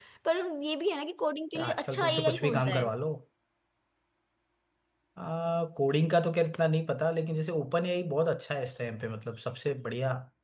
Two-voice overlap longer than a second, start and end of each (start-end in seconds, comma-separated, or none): 1.6-2.9